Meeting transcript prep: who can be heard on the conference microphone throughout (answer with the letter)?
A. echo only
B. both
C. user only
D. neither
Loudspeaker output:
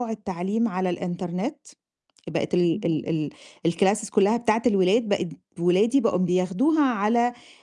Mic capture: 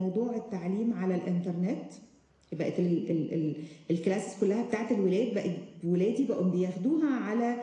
A